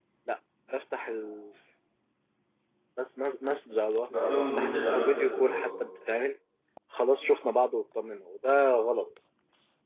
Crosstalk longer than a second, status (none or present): present